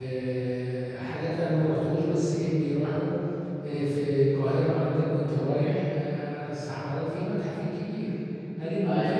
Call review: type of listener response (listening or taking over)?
listening